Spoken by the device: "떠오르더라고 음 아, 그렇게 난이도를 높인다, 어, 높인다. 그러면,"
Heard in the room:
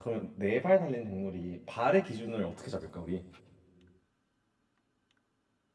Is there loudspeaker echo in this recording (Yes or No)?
No